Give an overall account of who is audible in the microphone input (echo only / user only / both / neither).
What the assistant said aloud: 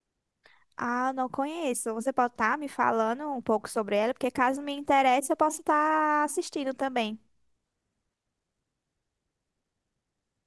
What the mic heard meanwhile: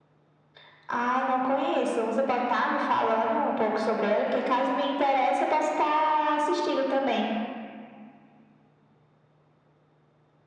echo only